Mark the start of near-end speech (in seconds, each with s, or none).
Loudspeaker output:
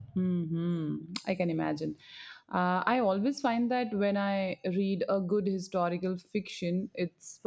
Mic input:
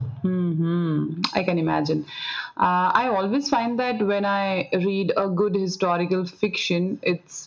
none